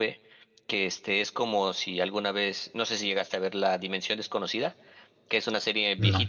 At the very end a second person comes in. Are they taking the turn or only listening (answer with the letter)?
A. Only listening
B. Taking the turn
A